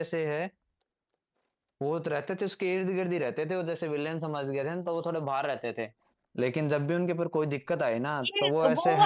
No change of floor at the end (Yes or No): No